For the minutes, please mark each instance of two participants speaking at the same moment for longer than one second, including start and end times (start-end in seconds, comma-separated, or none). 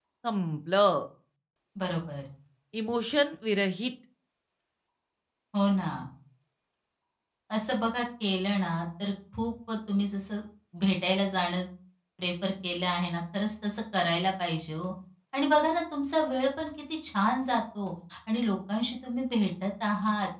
none